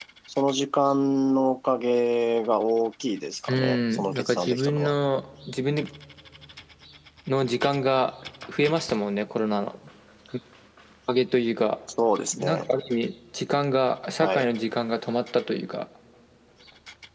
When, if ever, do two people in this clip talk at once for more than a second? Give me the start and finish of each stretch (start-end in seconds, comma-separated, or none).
3.5-4.9